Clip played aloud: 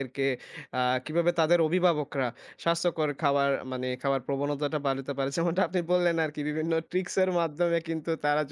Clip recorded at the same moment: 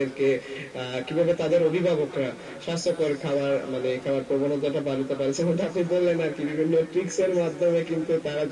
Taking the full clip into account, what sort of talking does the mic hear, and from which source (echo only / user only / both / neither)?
echo only